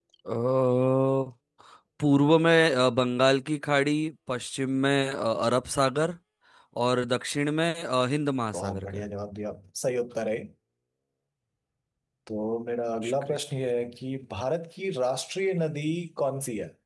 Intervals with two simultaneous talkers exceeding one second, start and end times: none

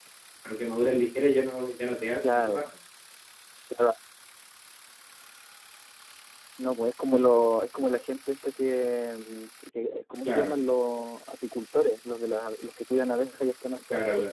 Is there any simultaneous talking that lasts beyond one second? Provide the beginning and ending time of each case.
none

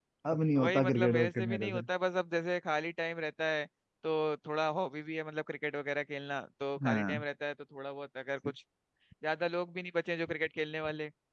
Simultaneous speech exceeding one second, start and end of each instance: 0.6-1.8

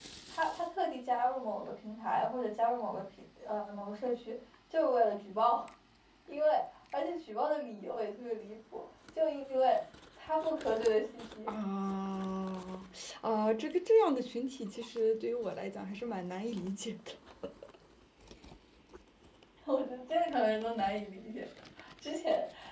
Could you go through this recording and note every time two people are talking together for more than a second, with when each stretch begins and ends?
none

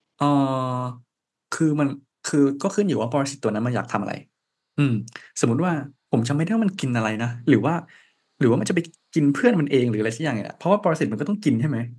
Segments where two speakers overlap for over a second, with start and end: none

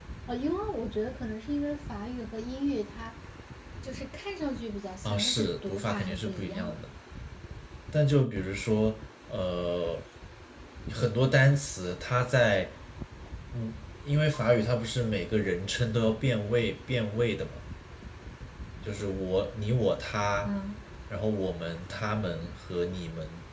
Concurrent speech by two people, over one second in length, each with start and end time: 5.0-6.8

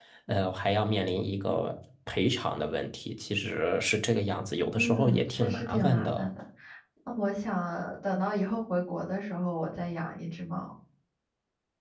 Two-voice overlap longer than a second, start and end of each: 4.7-6.3

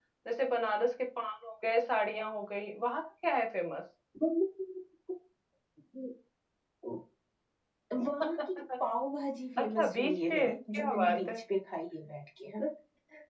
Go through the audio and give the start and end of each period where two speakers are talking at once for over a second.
9.6-11.4

